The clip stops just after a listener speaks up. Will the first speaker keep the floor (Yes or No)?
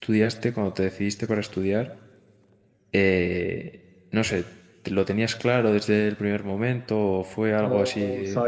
No